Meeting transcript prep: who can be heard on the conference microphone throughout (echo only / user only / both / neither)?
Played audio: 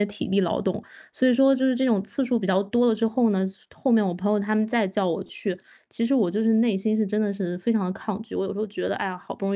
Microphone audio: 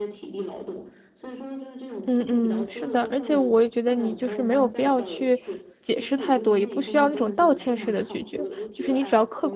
both